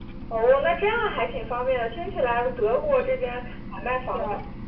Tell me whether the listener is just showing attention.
Yes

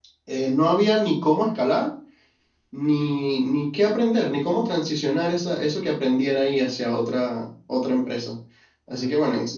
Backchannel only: Yes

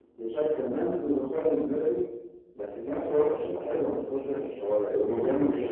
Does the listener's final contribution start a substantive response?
Yes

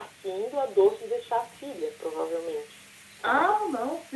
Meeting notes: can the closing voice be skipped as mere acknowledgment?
No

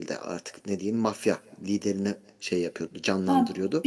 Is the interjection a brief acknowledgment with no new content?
No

